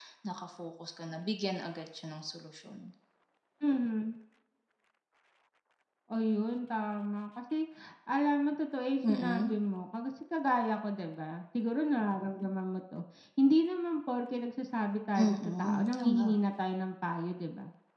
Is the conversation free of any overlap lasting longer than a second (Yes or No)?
No